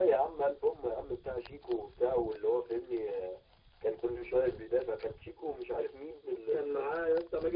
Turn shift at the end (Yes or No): Yes